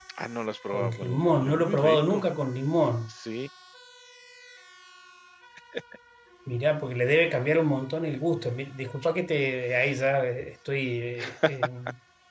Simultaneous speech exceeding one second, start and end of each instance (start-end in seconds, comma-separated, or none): 0.7-2.2